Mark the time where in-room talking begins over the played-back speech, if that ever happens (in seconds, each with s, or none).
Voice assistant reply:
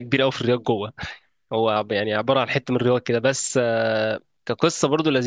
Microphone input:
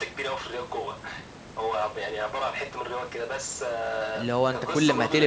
4.2 s